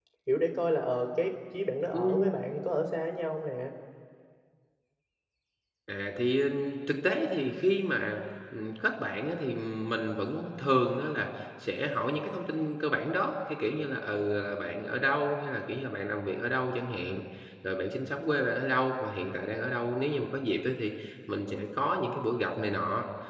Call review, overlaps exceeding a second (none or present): none